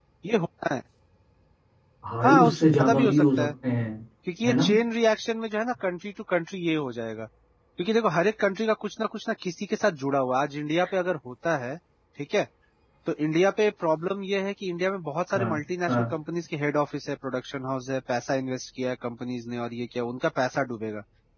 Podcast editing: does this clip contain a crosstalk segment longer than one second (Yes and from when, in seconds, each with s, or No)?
Yes, from 2.2 s